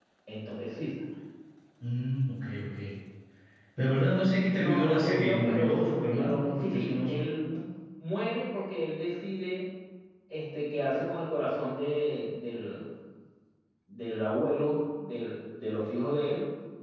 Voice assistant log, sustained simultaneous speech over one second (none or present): present